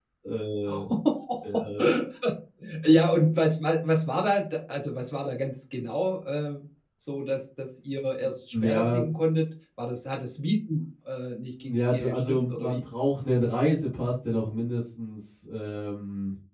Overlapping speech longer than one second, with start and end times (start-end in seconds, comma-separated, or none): 11.6-12.8